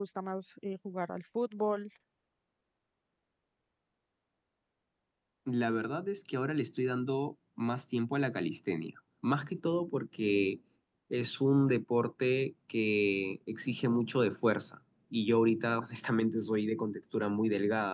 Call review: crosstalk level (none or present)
none